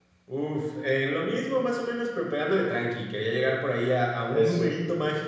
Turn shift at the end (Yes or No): No